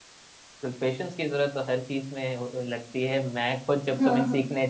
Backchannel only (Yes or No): Yes